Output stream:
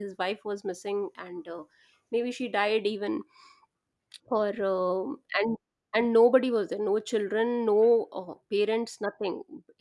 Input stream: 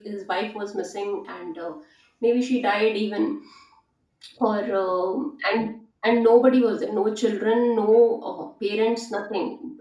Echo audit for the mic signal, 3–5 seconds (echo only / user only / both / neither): echo only